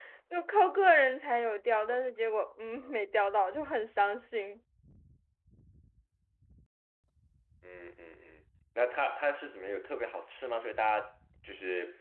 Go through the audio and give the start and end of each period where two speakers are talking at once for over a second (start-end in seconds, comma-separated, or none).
none